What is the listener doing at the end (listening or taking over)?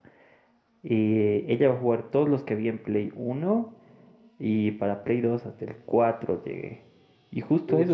listening